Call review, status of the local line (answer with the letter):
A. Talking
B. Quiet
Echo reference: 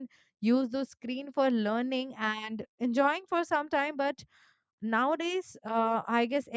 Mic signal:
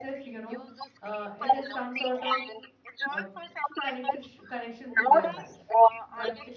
A